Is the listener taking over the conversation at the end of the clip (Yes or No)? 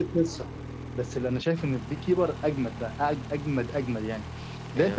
No